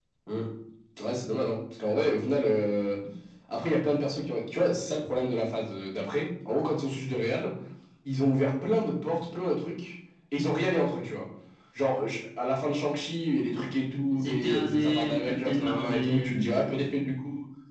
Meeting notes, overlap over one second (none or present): present